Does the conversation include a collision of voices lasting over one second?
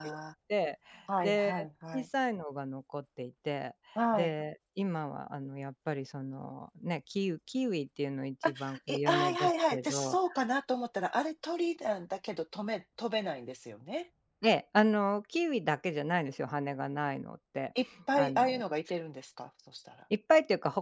Yes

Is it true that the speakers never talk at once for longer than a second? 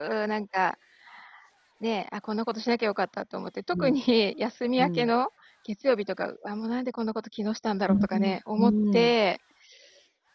No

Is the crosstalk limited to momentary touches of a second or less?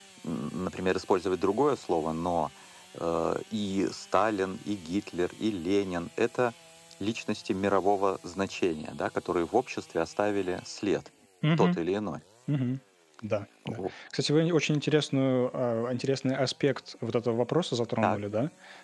Yes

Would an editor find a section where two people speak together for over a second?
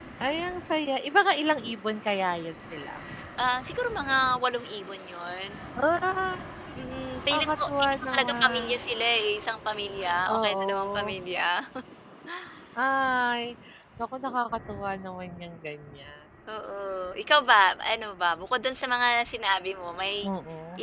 Yes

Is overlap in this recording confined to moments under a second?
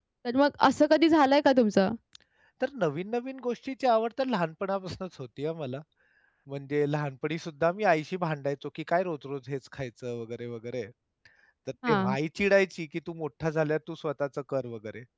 Yes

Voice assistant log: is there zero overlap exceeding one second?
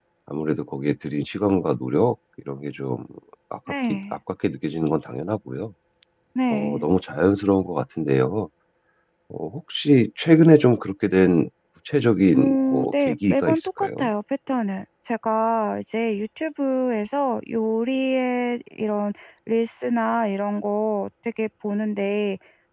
No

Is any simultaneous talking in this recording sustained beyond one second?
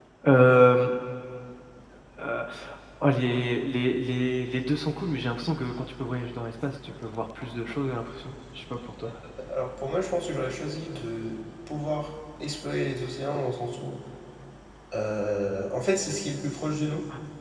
No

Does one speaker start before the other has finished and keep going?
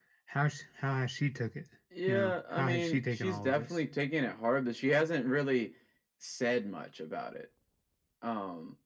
Yes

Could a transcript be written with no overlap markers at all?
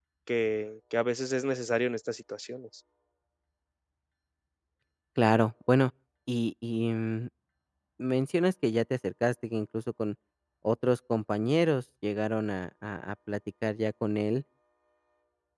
Yes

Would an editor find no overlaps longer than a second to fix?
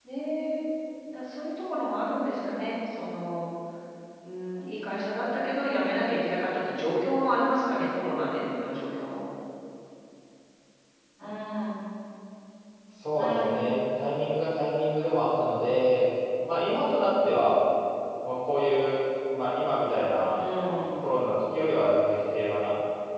Yes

